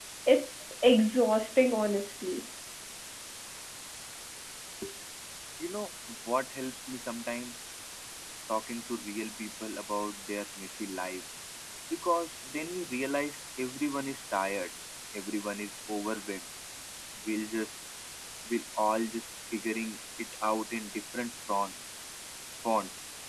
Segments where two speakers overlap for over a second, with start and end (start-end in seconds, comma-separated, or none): none